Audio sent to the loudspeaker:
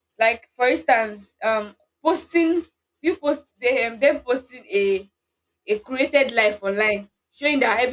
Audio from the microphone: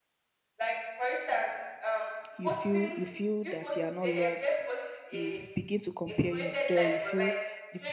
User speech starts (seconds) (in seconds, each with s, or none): 2.3 s